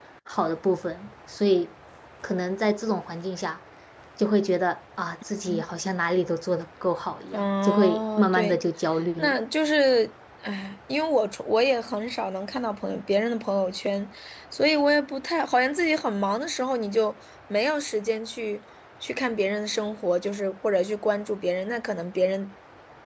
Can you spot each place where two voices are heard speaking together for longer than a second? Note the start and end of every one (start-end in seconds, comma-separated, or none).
7.3-8.6